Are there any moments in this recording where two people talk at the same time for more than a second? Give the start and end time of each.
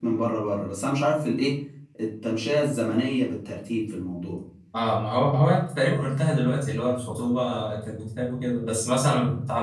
none

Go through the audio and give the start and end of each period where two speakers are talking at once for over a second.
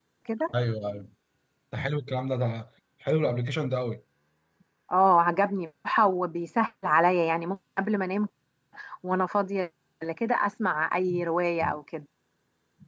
none

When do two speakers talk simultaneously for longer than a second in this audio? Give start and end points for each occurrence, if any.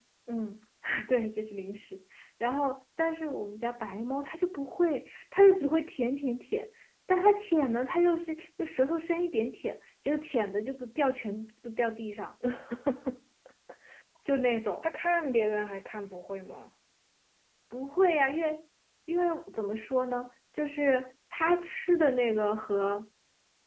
none

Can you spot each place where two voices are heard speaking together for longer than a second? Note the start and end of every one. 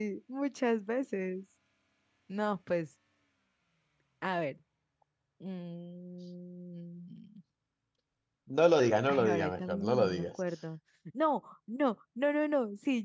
9.1-10.4

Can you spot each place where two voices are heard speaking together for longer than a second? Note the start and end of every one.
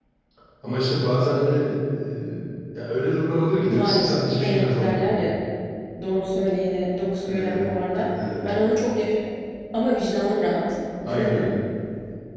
3.7-5.2

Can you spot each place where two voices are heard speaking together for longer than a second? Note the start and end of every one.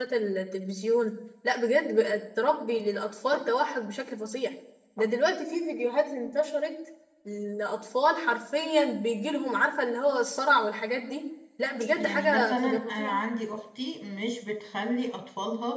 11.9-13.2

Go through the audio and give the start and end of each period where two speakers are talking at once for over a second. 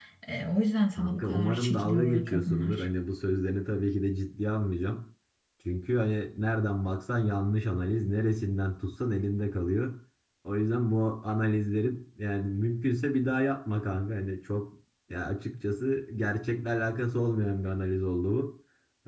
1.0-2.9

